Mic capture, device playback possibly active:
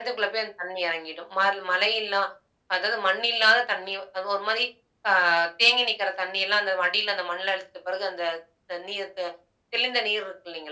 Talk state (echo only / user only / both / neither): echo only